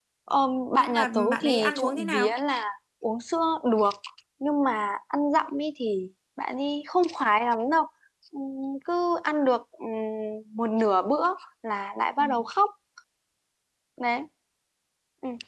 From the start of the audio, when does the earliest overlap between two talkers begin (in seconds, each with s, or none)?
0.8 s